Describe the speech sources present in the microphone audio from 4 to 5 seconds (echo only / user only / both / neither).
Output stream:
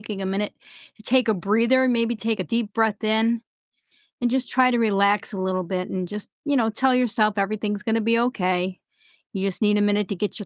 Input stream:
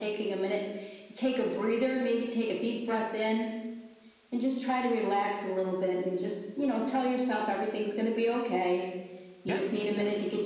echo only